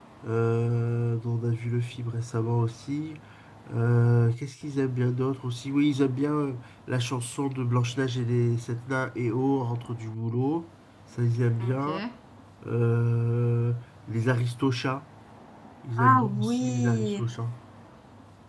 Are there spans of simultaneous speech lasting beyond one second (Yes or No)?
Yes